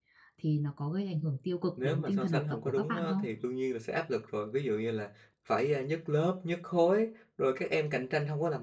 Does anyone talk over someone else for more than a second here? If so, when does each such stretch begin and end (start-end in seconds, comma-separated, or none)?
1.8-3.2